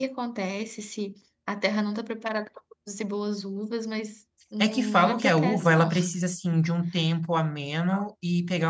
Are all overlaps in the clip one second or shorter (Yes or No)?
No